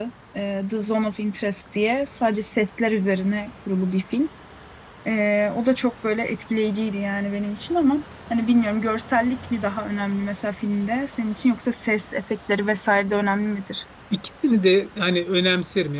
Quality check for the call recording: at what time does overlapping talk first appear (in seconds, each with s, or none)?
none